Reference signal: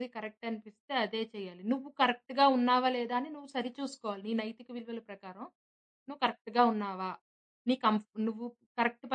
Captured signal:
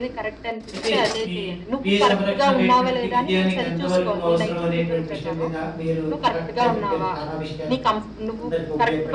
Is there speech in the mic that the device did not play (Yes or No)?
Yes